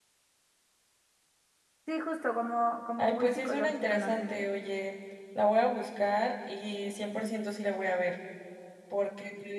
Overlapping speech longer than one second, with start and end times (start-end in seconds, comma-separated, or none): 3.0-4.5